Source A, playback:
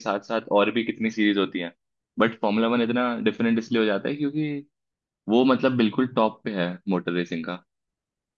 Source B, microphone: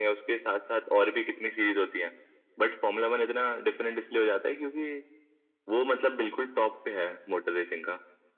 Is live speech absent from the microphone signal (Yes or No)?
Yes